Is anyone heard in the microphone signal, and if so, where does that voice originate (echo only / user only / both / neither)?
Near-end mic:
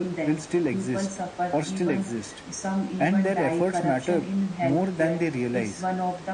echo only